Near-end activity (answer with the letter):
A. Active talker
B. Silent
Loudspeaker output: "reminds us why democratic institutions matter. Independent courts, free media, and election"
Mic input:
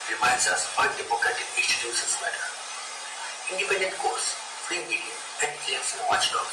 B